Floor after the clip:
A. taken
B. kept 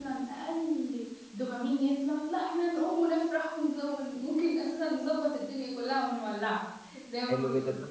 A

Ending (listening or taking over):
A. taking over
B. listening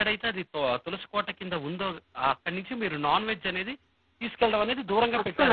A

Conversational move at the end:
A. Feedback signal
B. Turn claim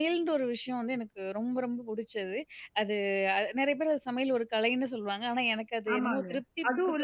B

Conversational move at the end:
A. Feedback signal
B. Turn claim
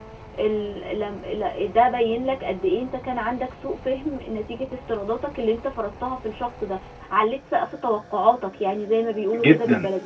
B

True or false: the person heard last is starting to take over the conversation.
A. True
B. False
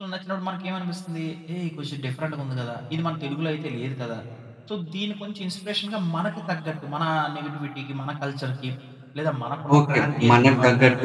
A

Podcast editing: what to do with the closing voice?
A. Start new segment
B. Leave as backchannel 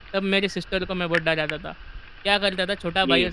B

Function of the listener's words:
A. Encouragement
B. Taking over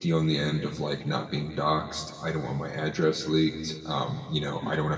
A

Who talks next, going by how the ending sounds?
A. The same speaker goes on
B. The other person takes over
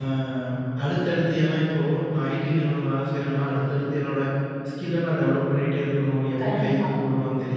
A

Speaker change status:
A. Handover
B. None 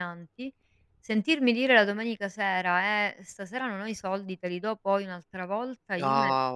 B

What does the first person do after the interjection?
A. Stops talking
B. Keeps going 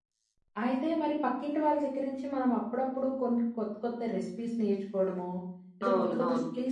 B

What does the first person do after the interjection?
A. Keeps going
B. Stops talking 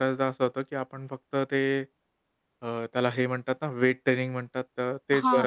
B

